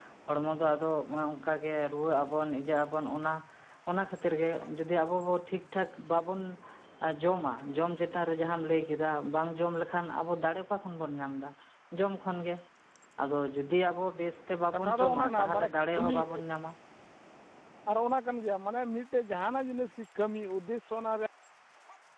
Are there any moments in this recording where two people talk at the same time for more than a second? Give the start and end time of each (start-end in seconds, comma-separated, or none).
14.7-16.2